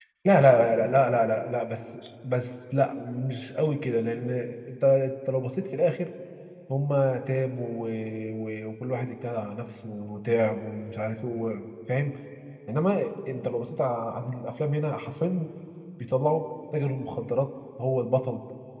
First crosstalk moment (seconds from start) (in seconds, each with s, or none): none